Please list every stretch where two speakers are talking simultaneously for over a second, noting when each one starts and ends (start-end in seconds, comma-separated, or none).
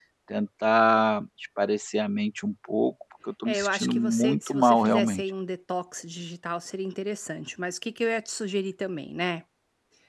3.5-5.2